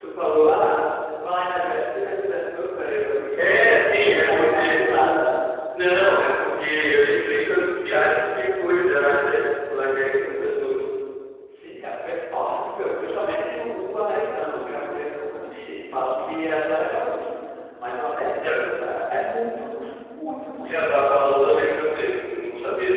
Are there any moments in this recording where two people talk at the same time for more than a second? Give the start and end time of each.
3.4-4.7

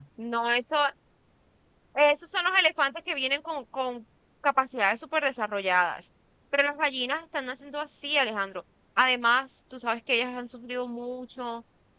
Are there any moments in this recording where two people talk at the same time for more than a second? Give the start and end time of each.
none

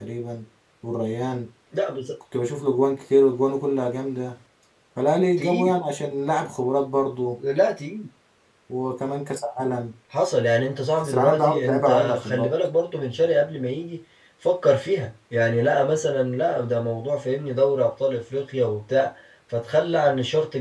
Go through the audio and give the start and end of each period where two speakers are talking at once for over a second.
11.0-12.5

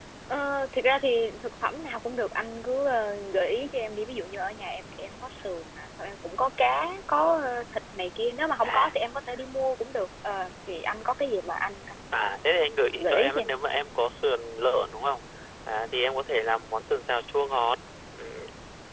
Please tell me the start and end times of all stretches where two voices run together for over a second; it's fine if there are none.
none

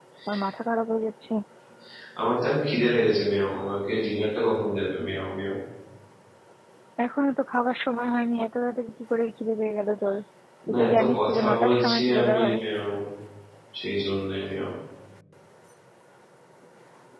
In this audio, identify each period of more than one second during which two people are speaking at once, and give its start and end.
10.7-12.6

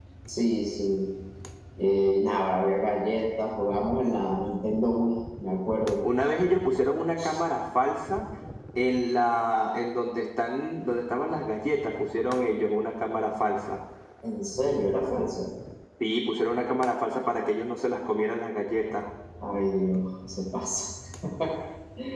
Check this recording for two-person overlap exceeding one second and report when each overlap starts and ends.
none

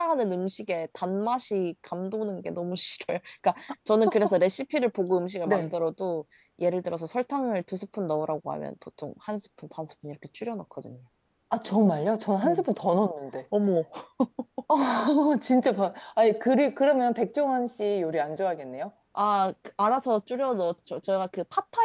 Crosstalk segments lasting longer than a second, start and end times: none

